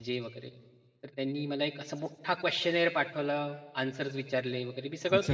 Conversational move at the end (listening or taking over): taking over